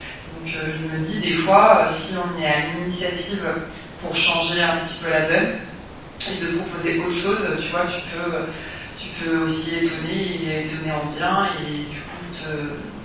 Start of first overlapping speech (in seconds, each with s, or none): none